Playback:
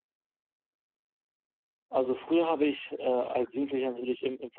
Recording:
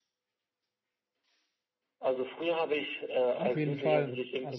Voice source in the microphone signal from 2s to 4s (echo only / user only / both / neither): both